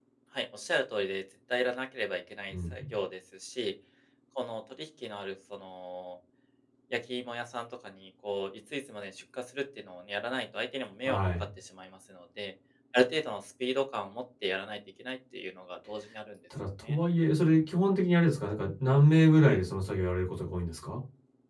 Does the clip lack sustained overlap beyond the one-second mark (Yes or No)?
Yes